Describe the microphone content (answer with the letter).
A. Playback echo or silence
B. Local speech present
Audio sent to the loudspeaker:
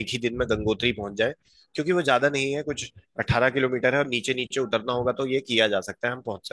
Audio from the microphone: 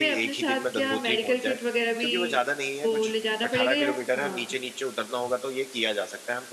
B